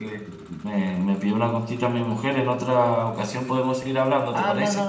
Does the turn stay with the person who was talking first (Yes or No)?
No